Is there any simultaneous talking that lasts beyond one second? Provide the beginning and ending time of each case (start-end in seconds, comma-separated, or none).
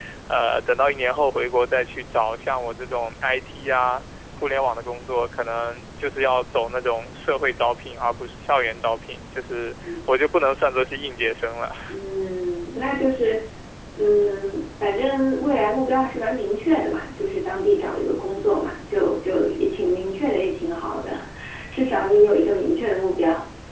none